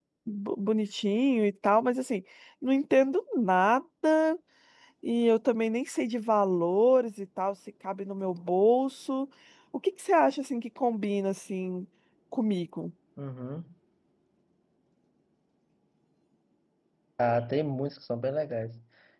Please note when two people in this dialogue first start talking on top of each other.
none

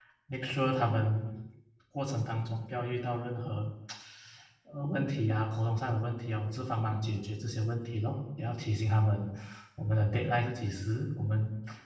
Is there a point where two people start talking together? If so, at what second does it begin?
none

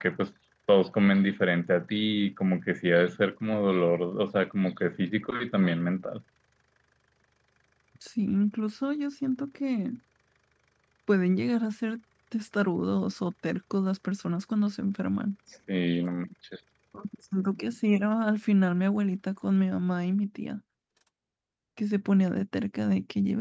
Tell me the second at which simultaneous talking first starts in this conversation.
none

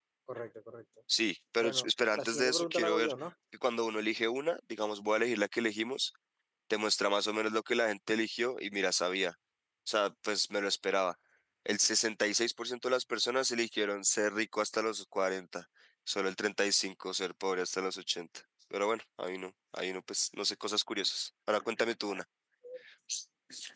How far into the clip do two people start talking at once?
2 s

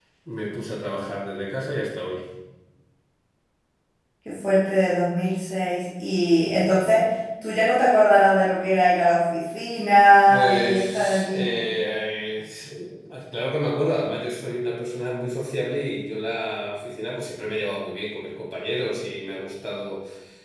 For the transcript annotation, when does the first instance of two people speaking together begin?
10 s

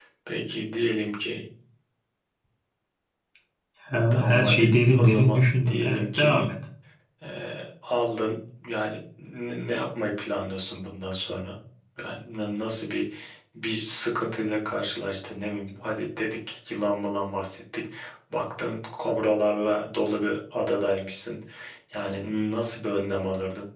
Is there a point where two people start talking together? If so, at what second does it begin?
4 s

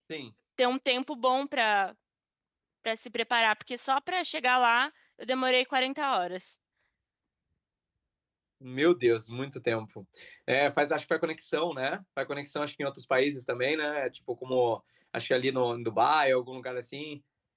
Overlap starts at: none

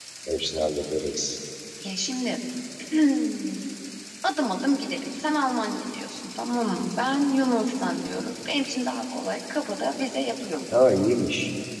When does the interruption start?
none

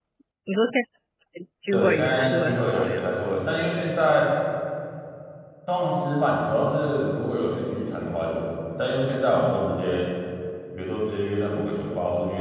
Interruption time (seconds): 2 s

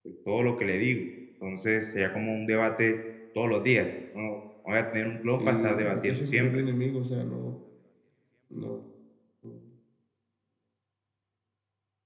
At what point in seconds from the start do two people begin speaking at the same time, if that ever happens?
5 s

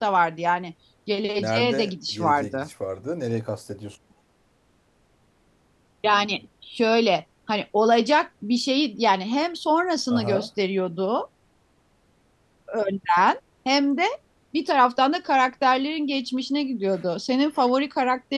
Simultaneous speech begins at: 1 s

